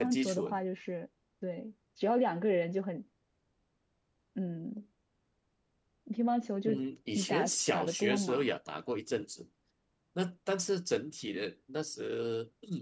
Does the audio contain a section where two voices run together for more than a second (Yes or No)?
Yes